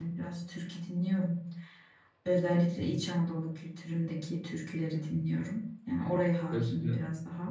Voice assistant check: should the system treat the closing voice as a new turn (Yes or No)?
Yes